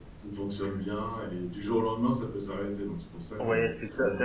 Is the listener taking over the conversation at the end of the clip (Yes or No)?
Yes